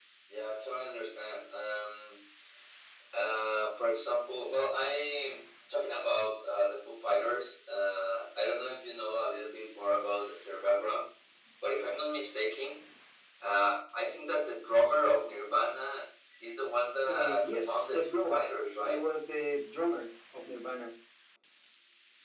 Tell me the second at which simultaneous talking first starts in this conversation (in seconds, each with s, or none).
17.1 s